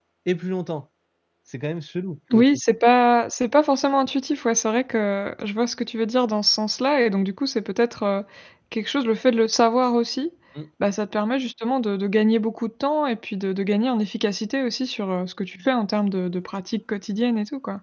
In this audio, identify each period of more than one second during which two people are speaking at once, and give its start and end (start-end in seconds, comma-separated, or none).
none